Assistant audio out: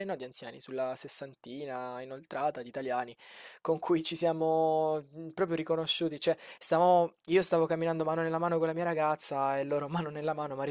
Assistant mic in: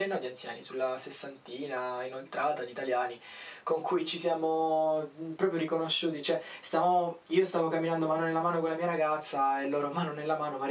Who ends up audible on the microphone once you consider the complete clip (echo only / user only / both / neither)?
echo only